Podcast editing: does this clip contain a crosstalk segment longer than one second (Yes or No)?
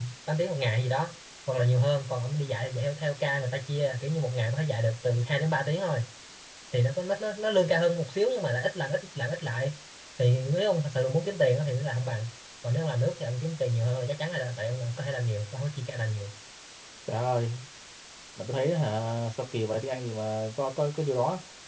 No